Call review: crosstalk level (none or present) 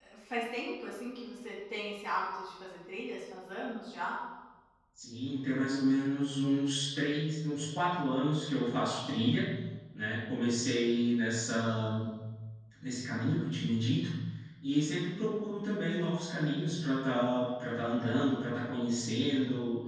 none